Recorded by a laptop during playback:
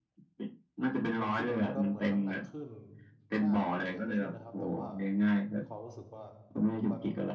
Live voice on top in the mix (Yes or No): No